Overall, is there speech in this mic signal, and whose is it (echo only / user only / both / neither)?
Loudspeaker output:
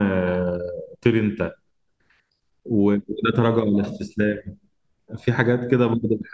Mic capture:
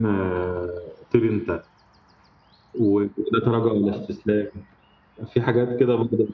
echo only